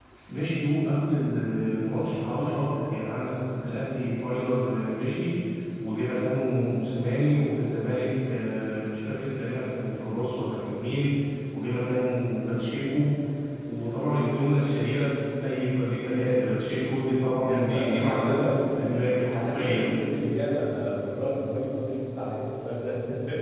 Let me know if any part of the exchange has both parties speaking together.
Yes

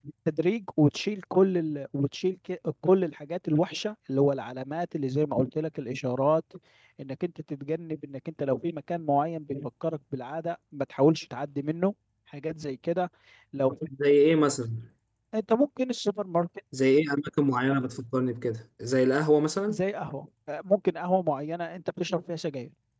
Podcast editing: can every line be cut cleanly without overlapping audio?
Yes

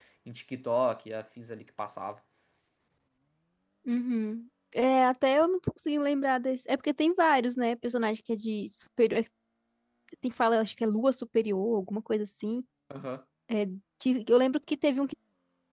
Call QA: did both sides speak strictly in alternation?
Yes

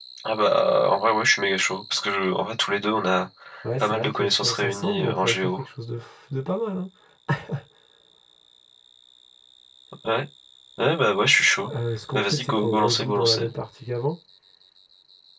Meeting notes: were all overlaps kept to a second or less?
No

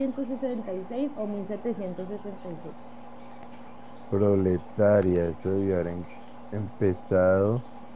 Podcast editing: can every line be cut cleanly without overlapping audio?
Yes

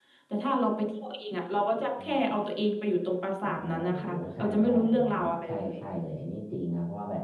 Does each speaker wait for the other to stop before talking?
No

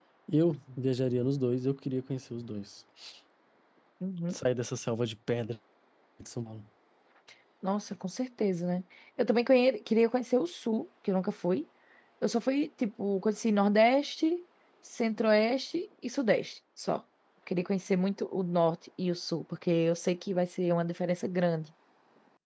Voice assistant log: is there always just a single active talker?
Yes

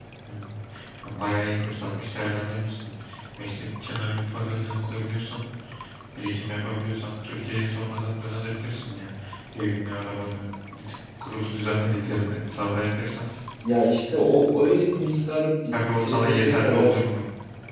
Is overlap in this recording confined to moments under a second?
No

